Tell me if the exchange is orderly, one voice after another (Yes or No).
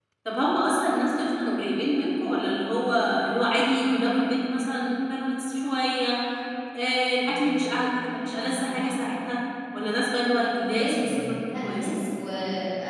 No